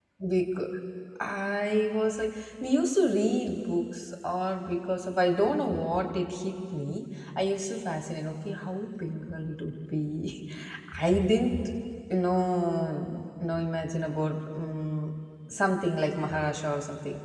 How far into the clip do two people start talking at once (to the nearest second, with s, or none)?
none